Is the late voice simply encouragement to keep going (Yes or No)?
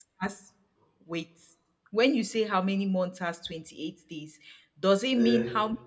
Yes